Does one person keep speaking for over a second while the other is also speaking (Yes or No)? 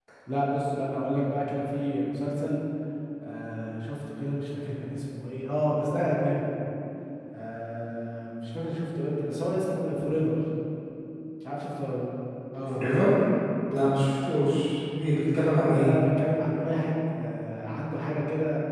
No